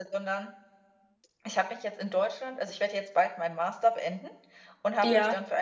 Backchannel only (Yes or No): Yes